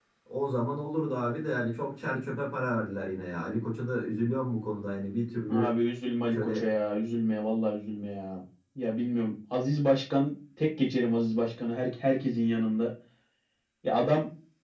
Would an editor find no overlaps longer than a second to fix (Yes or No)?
Yes